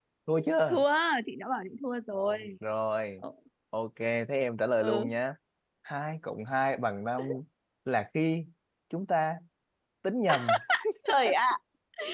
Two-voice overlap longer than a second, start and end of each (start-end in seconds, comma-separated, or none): none